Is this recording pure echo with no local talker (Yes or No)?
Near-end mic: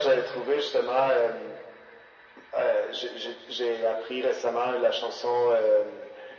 Yes